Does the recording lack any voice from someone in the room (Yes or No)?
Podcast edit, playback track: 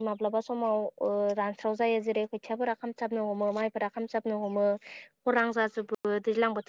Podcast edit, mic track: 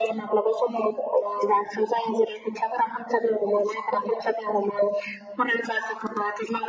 Yes